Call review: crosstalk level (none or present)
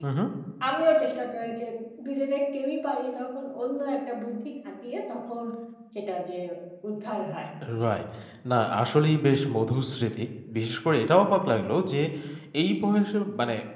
none